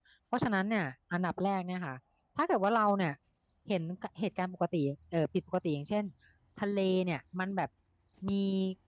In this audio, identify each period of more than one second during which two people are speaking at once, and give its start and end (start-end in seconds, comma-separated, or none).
none